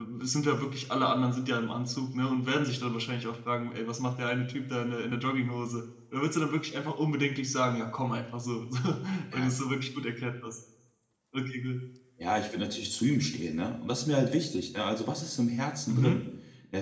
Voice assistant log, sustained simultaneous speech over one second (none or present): none